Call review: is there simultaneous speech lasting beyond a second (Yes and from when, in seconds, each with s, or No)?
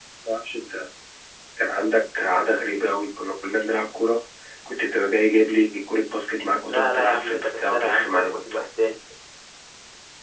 Yes, from 6.7 s